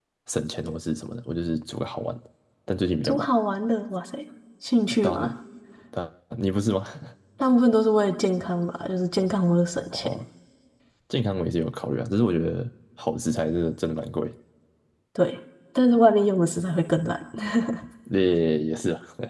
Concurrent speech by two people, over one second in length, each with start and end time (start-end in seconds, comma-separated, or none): none